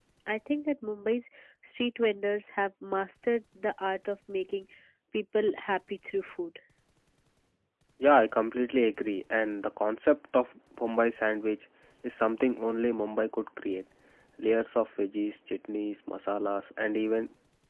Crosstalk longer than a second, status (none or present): none